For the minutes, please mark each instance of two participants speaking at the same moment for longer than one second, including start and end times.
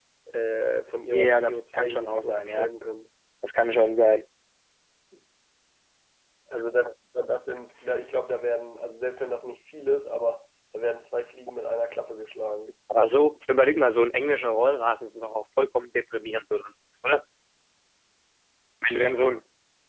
1.1-2.7

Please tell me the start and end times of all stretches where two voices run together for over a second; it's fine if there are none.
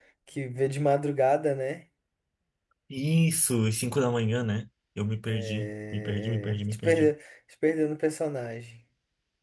5.3-7.1

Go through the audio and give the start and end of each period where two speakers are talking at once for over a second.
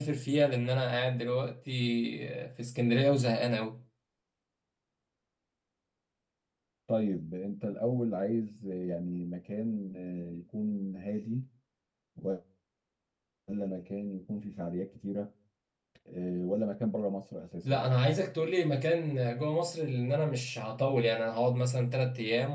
none

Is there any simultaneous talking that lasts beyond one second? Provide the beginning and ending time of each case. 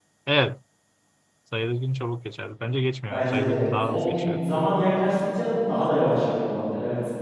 3.0-4.4

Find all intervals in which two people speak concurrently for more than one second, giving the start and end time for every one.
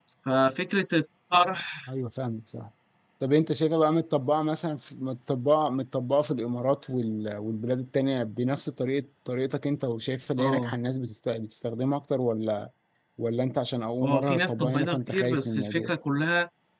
14.0-15.9

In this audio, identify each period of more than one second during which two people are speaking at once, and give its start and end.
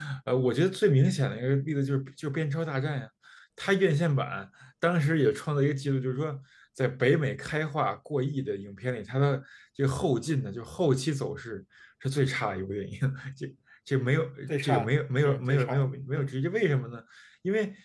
14.5-16.3

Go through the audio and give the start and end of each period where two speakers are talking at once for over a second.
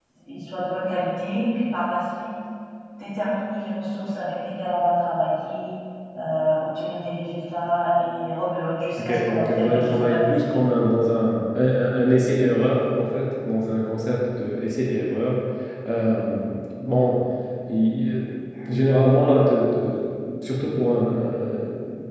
9.0-10.3

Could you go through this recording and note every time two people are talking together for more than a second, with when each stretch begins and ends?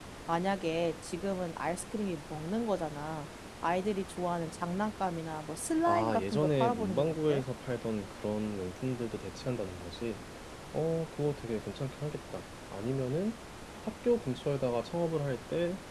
5.9-7.4

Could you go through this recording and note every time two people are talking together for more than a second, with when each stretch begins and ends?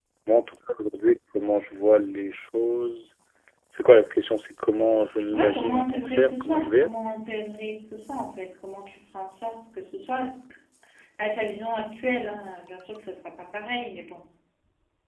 5.3-6.9

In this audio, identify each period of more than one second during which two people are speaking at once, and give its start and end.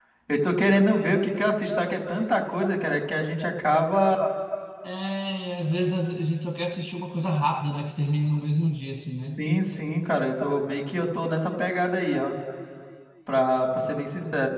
none

